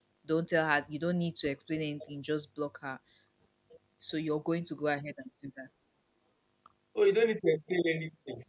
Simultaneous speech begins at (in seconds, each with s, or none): none